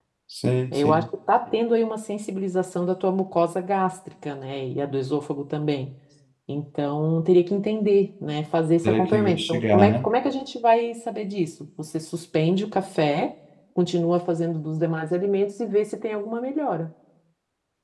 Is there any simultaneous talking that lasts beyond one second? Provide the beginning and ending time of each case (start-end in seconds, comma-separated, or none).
8.8-10.0